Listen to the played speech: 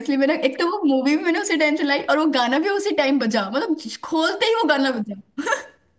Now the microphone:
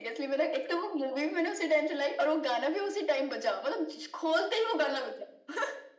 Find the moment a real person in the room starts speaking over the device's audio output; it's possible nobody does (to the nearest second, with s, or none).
none